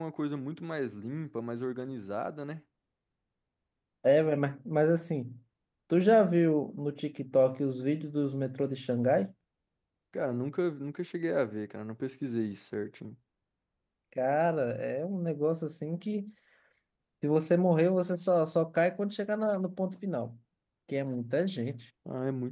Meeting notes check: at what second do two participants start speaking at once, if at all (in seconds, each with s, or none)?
none